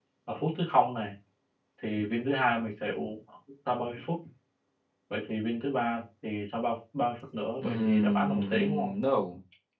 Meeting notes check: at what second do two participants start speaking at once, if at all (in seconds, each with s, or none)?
7.6 s